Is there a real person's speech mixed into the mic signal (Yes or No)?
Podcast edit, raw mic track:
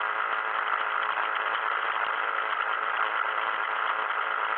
No